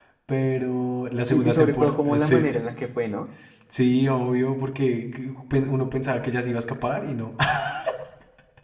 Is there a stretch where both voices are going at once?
Yes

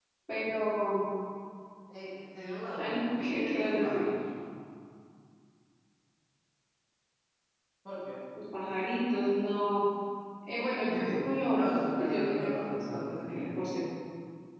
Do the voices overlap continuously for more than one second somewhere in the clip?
Yes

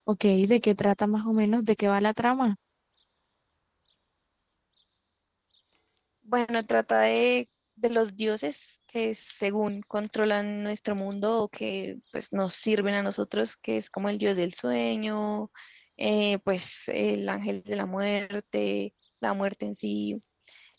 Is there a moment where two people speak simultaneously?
No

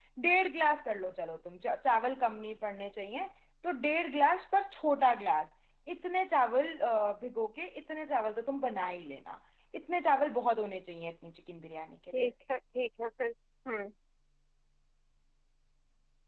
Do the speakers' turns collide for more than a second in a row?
No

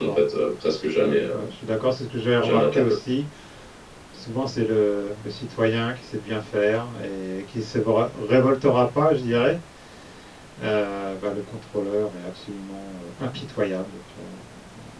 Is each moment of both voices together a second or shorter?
Yes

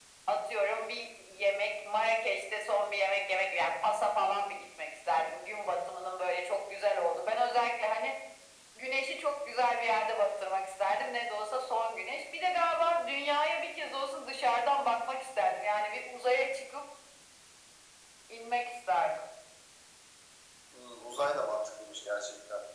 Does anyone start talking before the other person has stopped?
No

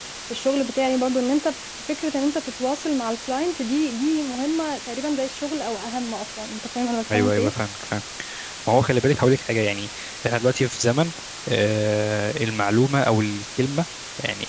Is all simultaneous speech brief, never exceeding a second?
Yes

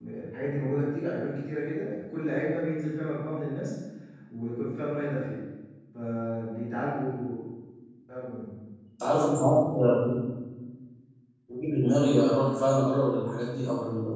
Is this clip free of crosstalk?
Yes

